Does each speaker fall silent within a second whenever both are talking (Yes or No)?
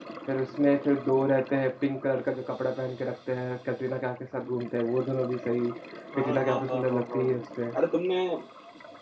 No